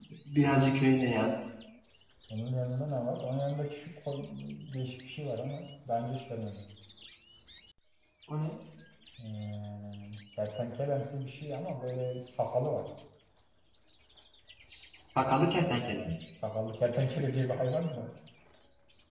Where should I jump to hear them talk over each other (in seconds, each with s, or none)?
none